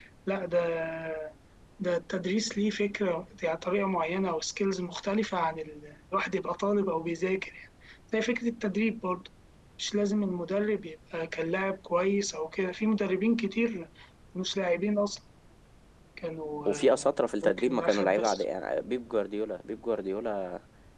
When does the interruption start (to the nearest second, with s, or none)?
17 s